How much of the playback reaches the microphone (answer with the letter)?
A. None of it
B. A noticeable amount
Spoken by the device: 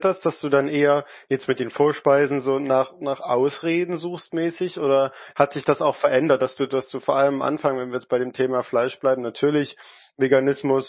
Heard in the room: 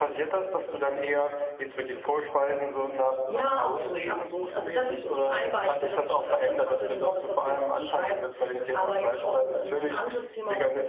B